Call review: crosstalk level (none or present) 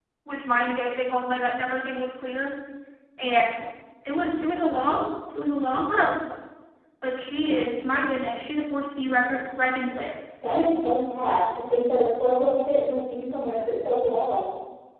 none